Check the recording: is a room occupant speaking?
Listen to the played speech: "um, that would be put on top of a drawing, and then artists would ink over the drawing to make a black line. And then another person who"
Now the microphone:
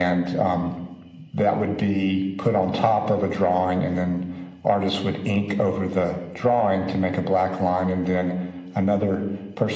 No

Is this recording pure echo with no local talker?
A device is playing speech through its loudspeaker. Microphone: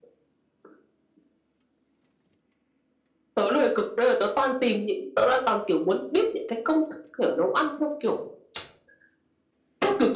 Yes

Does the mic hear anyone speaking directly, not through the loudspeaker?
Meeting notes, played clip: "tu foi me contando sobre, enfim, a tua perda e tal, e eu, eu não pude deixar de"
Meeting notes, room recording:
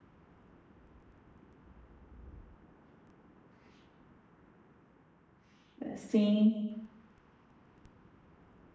Yes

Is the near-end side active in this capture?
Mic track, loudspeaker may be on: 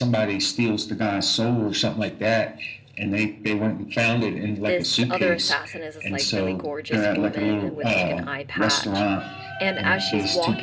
Yes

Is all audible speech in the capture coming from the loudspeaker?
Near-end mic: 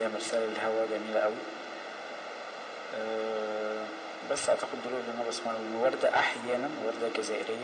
Yes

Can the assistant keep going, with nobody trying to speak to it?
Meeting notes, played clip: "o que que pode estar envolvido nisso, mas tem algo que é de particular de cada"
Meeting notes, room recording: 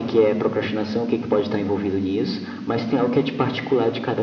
Yes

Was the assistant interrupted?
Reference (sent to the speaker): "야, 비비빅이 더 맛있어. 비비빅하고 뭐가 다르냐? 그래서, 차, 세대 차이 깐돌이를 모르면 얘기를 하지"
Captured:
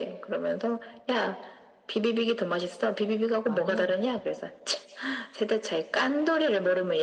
Yes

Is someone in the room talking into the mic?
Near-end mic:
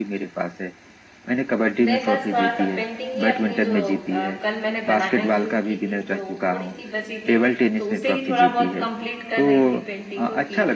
Yes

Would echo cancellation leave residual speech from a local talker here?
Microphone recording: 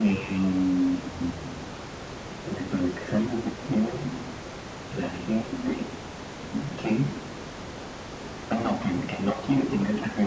No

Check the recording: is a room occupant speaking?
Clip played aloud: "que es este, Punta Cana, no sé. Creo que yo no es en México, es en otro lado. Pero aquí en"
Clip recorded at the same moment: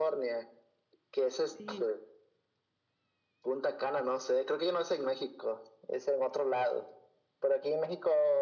Yes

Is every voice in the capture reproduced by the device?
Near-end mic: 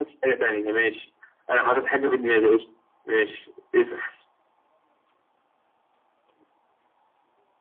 Yes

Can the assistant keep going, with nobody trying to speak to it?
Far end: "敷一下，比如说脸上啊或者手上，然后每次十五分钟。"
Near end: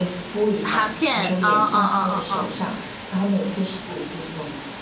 No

